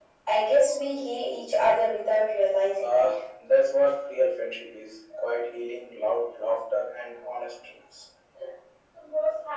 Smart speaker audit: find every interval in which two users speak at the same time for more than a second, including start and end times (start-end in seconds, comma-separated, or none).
none